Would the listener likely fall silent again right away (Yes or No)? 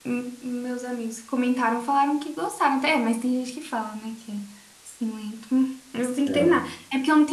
Yes